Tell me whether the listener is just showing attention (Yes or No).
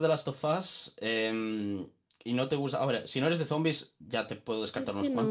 No